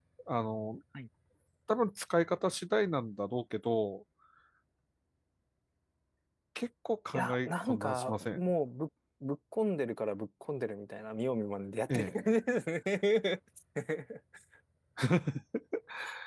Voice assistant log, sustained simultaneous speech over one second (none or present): present